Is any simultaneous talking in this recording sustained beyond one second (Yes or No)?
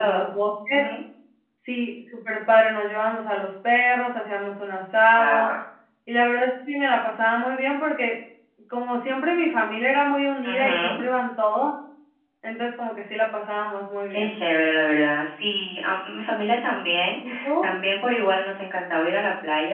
No